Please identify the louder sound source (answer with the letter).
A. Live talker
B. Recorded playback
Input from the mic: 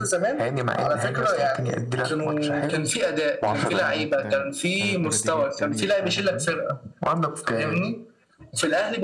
B